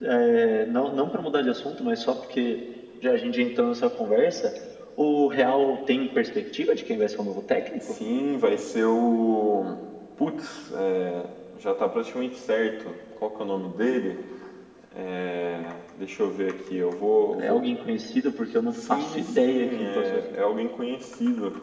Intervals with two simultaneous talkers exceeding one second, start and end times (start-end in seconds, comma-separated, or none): 18.9-20.2